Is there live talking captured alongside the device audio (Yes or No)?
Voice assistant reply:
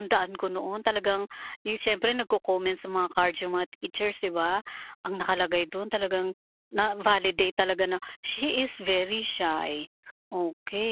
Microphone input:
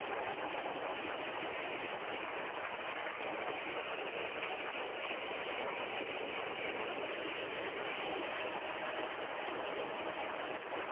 No